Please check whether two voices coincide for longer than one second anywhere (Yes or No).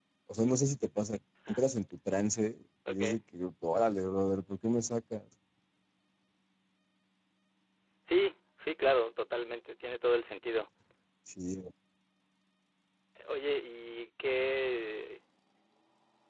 No